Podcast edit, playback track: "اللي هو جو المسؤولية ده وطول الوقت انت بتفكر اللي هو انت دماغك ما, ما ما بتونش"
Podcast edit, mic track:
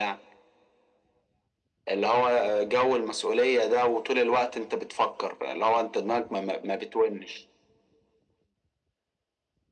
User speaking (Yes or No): No